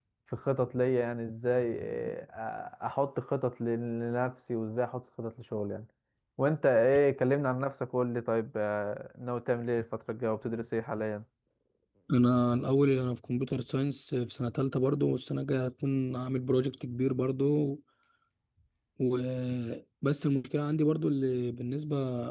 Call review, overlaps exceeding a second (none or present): none